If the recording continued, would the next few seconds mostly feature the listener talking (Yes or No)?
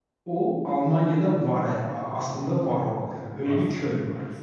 Yes